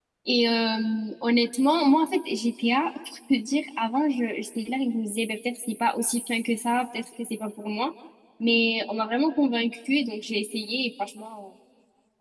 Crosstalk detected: No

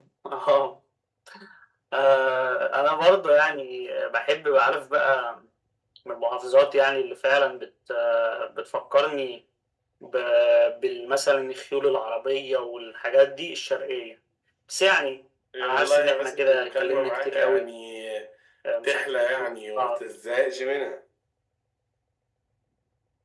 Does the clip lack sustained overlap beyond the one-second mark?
No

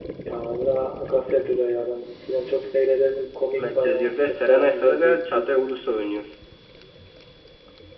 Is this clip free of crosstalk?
No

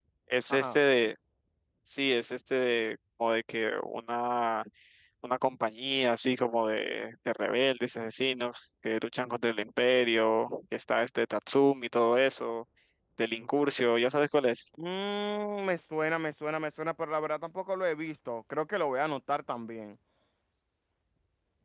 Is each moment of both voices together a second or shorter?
Yes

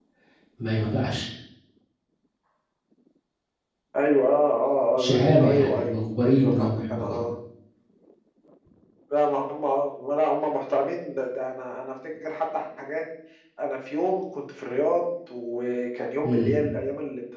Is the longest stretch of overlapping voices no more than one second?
No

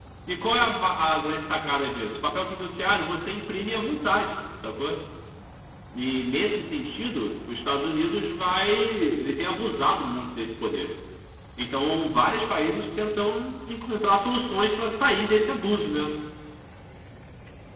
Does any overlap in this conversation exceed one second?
No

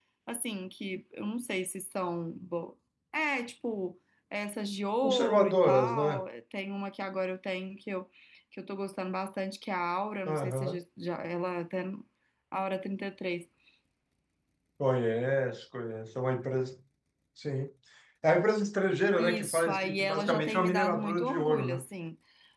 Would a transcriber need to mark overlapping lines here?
Yes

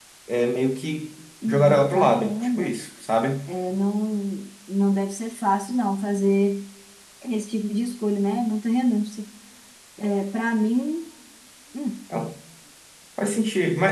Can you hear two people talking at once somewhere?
Yes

